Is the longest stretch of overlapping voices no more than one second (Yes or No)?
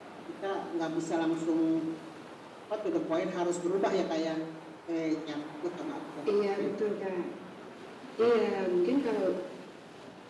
Yes